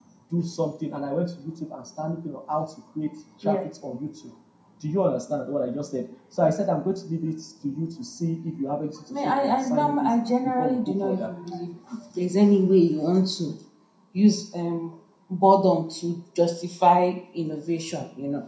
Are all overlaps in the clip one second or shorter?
No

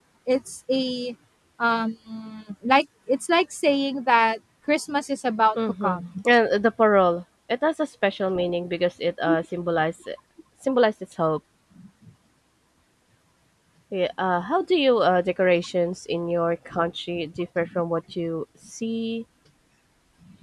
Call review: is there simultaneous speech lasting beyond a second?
No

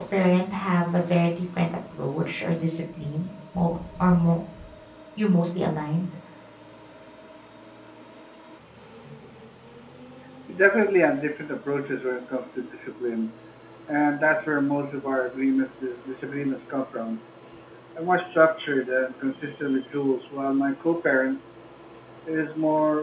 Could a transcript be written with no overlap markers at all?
Yes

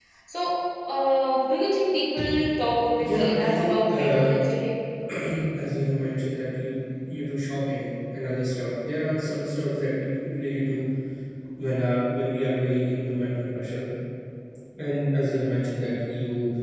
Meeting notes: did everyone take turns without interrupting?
No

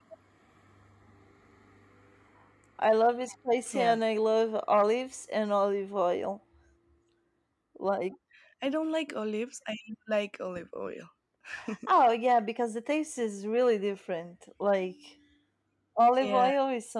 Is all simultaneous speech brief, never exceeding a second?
Yes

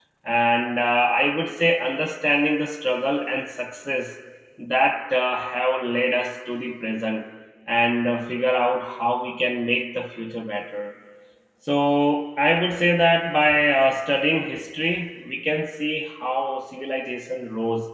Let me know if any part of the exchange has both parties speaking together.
No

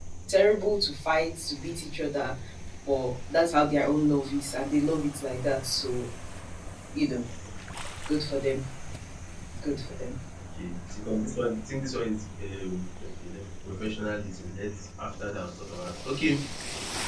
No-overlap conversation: Yes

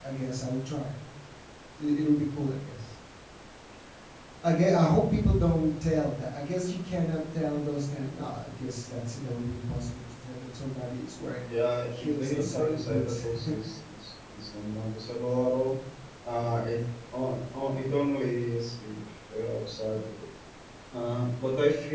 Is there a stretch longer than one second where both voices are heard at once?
Yes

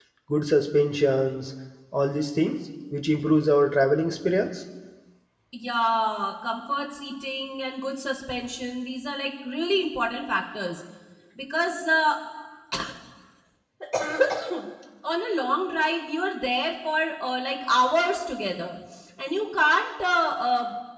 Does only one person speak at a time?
Yes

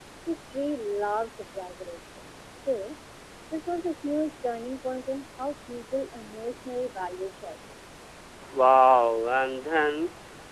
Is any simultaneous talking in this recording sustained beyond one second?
No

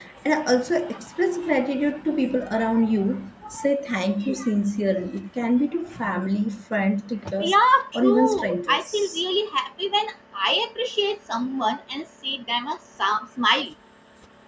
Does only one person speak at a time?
No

